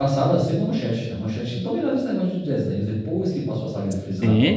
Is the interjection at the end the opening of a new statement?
Yes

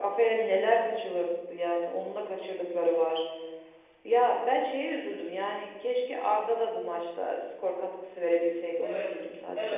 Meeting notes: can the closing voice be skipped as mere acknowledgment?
No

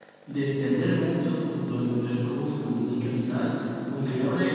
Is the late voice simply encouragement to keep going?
Yes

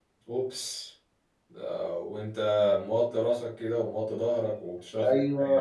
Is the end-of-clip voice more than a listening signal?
Yes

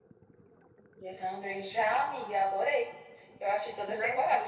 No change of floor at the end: Yes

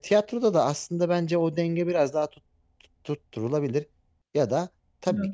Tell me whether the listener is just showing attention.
Yes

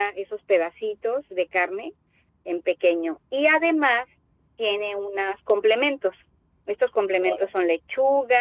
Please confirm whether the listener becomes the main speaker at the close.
No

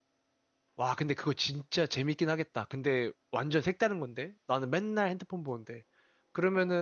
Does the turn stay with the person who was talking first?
Yes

